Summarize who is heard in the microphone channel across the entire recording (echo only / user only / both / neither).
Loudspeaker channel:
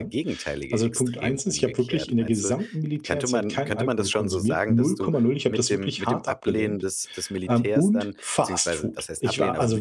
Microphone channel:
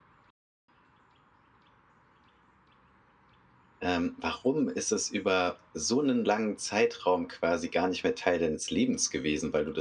user only